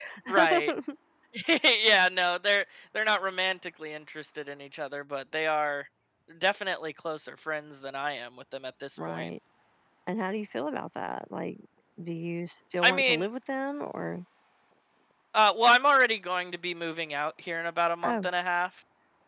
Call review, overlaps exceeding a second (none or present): none